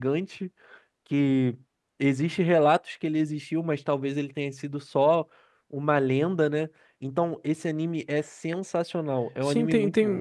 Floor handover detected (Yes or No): Yes